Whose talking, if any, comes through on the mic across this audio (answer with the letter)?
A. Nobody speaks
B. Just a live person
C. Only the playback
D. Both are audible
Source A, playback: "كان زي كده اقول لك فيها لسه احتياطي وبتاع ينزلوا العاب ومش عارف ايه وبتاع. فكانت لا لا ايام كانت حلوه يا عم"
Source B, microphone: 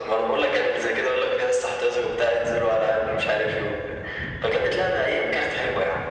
C